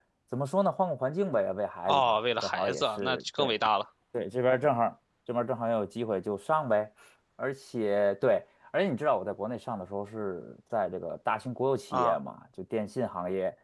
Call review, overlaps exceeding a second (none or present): present